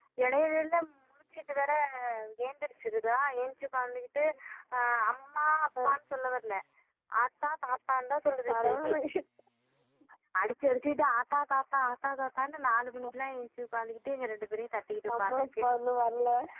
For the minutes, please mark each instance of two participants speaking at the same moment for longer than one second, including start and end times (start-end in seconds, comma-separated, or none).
none